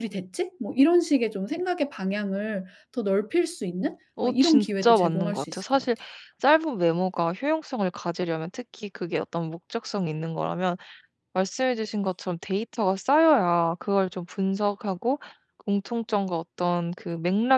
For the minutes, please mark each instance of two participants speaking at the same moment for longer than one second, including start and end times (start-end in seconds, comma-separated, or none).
4.2-5.8